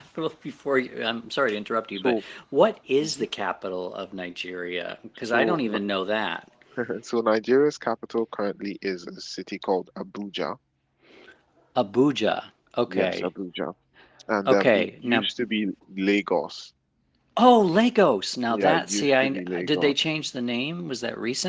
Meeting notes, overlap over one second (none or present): present